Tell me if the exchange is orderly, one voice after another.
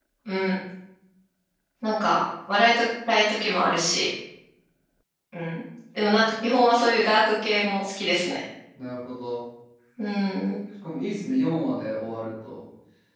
Yes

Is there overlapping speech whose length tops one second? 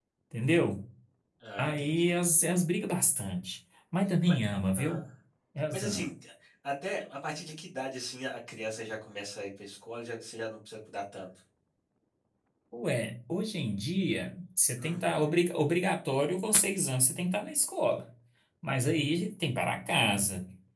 No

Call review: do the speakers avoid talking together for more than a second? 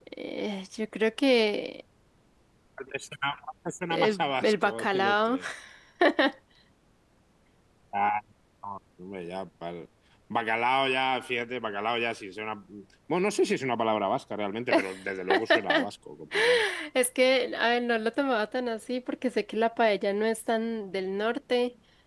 No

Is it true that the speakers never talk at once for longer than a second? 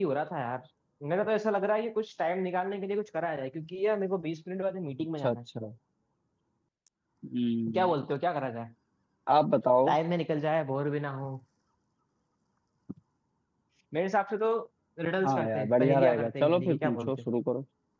No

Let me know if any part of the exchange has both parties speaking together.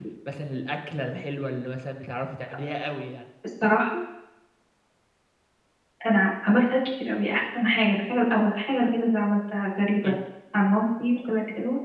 No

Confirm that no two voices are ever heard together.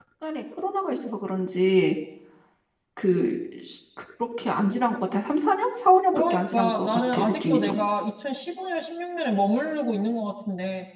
No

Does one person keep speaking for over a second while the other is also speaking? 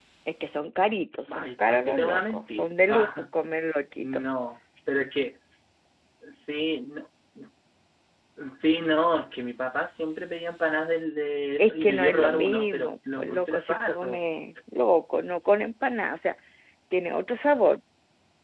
Yes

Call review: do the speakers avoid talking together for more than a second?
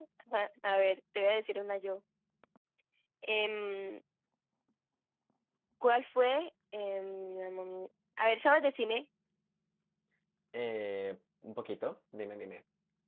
Yes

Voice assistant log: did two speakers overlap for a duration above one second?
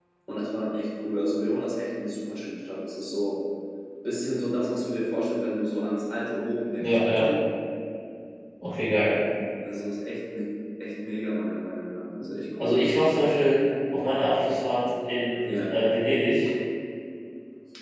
No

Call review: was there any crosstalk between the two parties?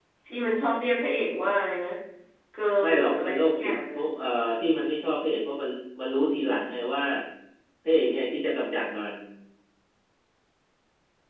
Yes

